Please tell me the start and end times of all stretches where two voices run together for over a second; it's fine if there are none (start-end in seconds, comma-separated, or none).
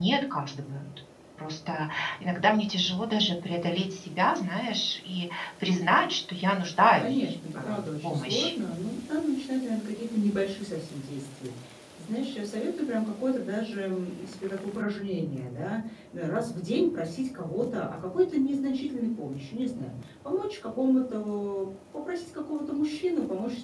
7.0-8.6